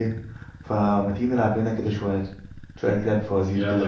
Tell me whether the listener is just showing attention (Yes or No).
No